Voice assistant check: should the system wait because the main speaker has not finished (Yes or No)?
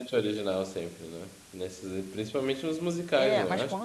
No